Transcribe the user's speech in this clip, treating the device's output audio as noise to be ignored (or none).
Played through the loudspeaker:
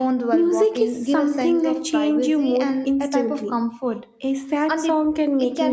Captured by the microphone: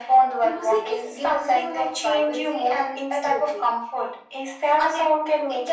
none